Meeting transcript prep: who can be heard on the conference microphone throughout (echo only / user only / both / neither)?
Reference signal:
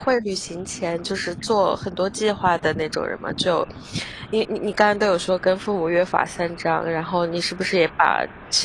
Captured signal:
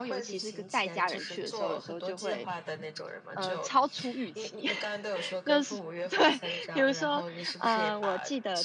both